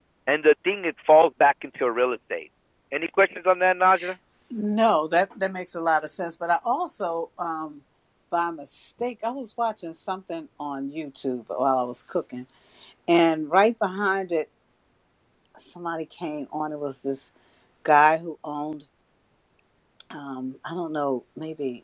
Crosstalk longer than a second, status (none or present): none